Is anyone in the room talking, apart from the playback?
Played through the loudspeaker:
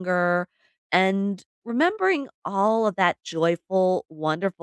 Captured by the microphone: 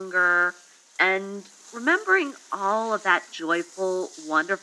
No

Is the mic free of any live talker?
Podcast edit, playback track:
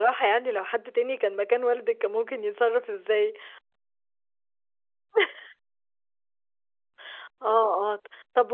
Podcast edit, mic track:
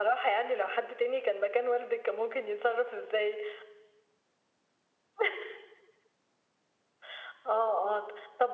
Yes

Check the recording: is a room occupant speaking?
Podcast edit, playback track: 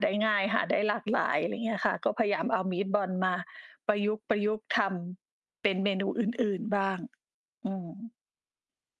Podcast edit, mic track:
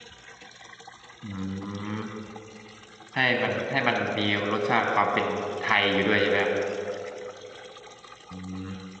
Yes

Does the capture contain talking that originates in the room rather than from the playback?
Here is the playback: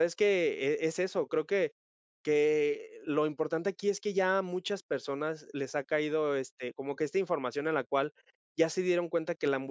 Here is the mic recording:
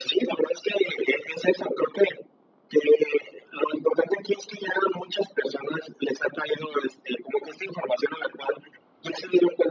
No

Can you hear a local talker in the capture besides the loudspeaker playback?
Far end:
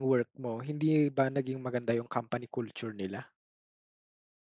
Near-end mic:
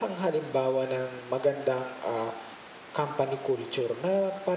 Yes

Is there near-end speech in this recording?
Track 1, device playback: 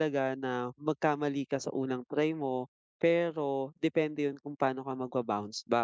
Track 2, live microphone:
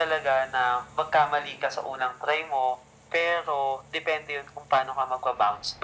No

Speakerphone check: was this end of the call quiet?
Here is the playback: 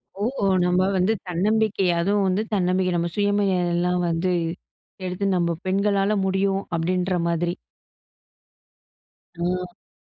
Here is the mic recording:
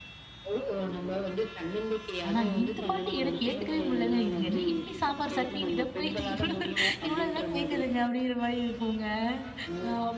No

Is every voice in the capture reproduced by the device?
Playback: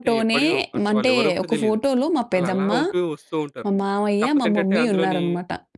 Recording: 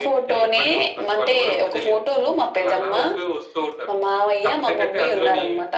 Yes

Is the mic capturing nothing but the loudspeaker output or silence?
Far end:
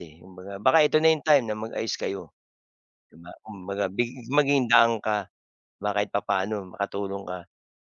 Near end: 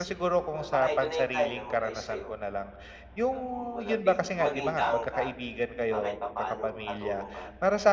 No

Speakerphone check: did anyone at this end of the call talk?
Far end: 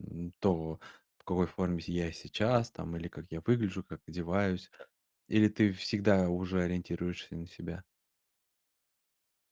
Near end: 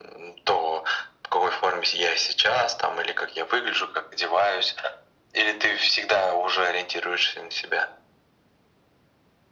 No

